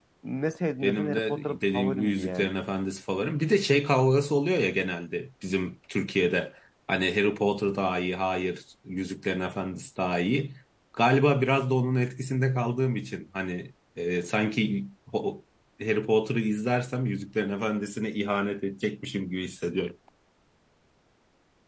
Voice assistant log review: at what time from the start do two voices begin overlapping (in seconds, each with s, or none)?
0.8 s